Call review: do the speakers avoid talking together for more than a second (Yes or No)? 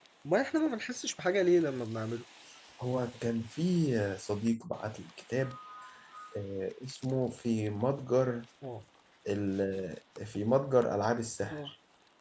Yes